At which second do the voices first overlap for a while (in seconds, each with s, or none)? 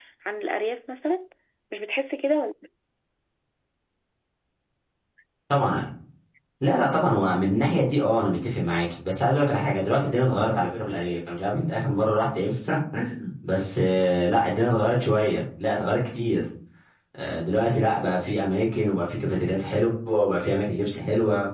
none